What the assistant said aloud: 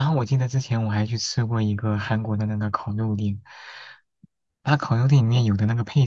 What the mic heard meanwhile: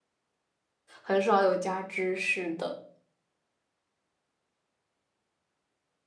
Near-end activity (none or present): present